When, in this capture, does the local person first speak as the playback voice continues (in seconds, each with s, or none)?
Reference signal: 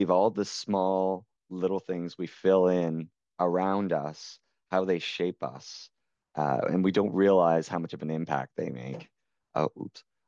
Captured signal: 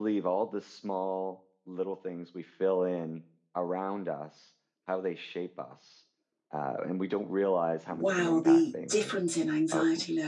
7.9 s